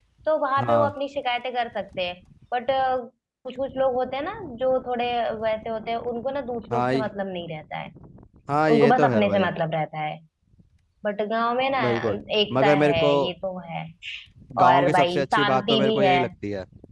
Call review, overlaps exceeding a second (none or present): present